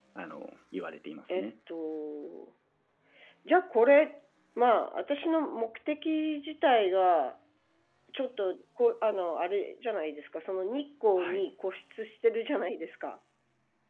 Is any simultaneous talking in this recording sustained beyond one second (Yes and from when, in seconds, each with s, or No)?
No